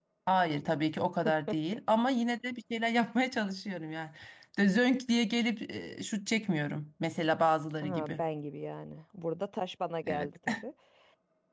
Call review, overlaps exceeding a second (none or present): none